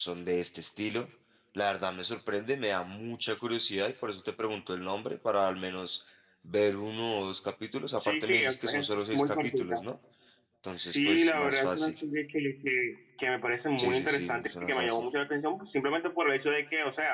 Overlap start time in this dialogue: 8.0 s

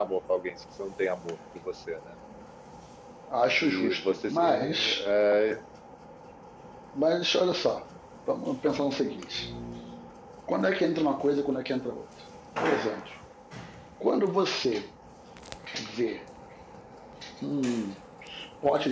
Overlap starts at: 3.6 s

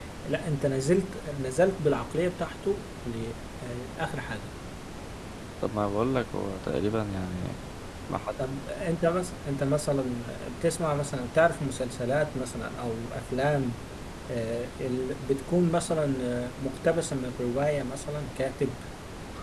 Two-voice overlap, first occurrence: none

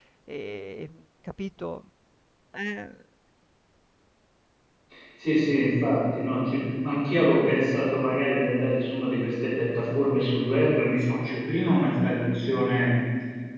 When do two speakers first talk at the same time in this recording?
none

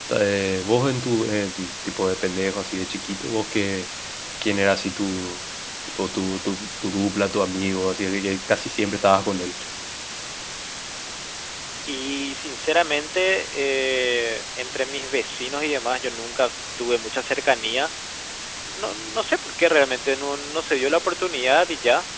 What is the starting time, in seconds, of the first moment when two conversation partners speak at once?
none

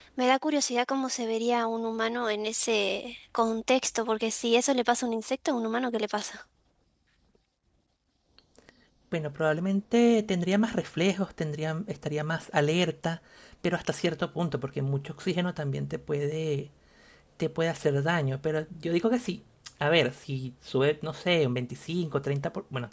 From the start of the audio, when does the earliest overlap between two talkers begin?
none

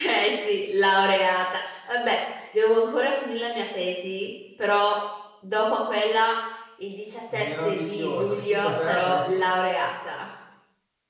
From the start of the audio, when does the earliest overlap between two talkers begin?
7.3 s

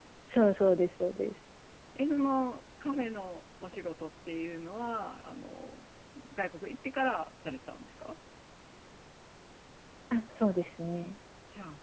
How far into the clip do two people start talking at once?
none

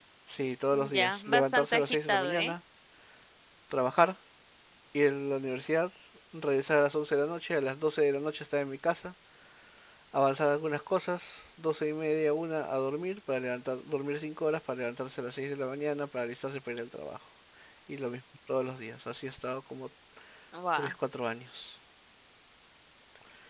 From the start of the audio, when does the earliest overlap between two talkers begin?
0.9 s

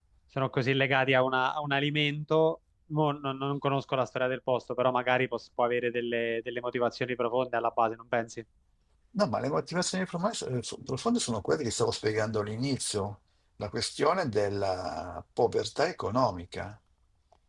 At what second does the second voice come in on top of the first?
none

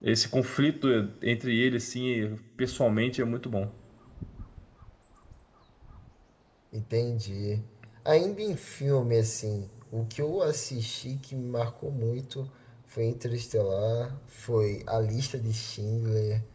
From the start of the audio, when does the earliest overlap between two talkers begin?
none

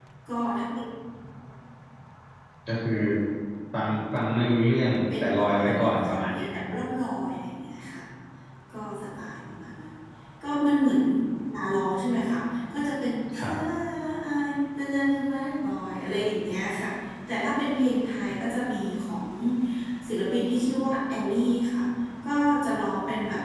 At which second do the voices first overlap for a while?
5.2 s

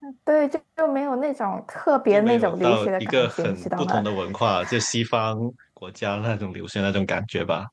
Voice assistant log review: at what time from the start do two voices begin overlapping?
2.1 s

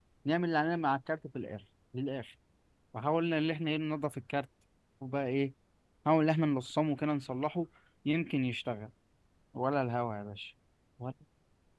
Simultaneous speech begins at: none

